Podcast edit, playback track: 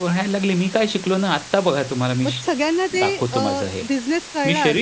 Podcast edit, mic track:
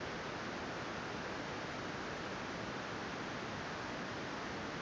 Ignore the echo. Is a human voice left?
No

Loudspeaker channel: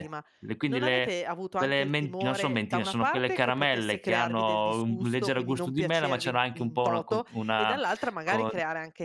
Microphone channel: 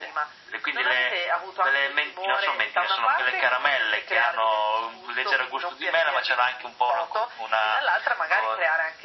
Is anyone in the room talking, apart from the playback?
No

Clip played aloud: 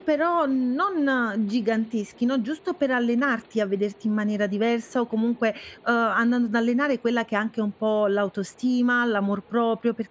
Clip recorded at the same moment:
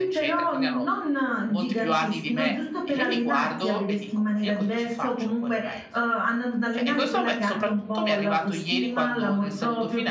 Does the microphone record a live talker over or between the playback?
Yes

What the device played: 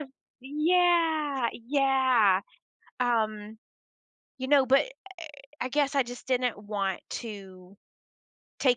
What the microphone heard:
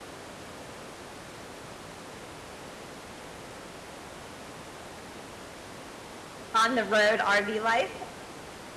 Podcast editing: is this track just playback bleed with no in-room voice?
No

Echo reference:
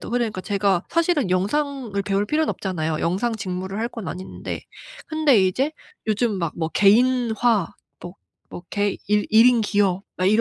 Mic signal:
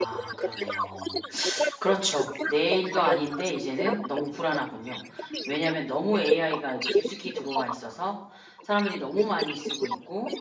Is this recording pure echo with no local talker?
No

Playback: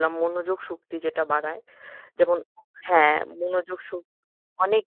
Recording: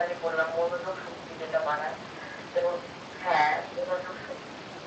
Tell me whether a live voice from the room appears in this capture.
No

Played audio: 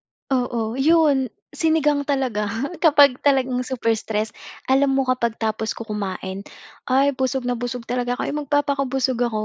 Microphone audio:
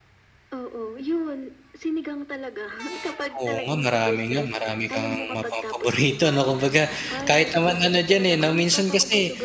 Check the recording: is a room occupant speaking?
Yes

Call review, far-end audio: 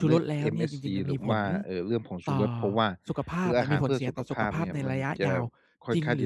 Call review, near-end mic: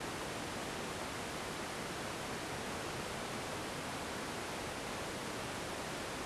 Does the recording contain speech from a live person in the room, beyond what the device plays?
No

